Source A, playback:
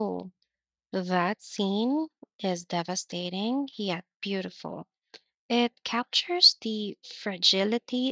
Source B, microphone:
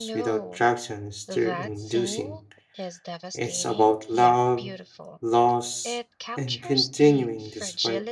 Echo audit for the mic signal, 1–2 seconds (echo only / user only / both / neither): both